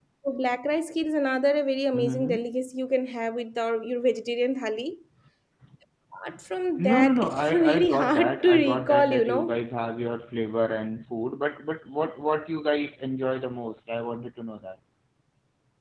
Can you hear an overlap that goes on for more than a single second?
Yes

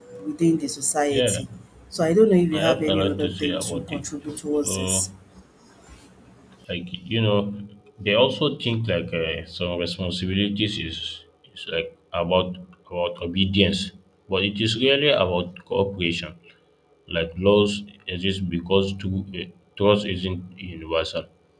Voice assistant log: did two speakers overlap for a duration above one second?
Yes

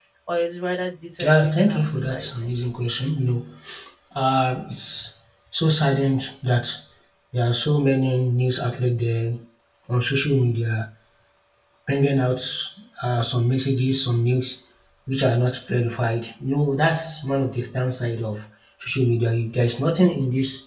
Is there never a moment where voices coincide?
No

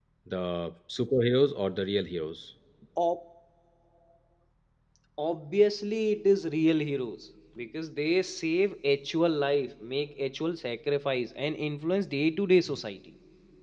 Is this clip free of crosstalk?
Yes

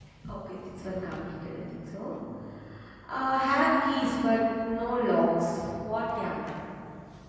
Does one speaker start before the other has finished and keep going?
No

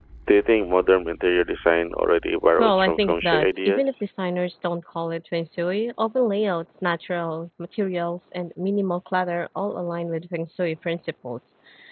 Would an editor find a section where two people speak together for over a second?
Yes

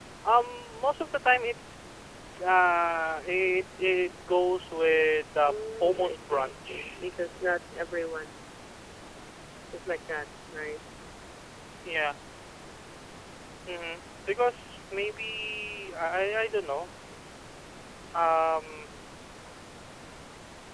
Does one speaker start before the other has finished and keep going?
Yes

